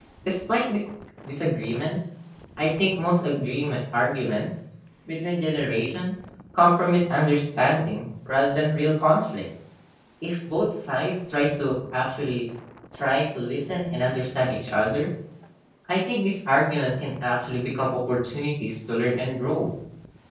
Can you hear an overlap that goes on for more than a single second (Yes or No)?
No